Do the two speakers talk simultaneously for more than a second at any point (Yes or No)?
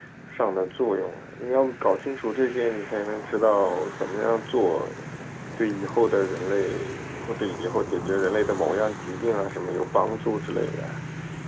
No